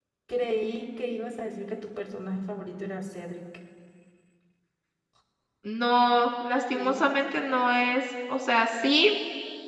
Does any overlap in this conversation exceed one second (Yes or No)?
No